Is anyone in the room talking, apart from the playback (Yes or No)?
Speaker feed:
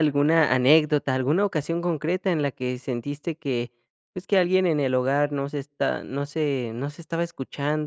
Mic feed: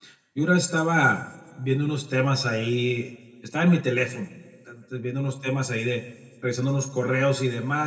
Yes